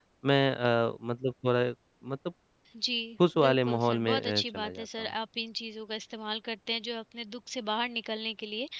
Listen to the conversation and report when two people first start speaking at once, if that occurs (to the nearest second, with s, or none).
3 s